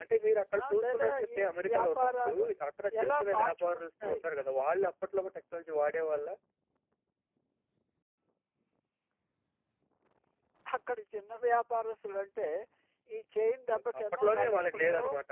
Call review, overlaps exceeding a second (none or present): present